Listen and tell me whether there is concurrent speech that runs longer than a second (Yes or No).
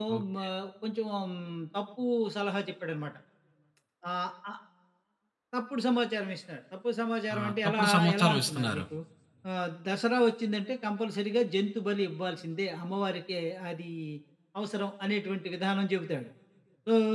Yes